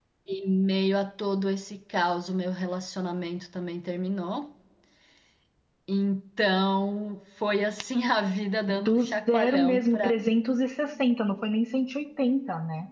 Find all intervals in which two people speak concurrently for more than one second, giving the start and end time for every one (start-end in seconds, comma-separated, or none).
8.7-10.1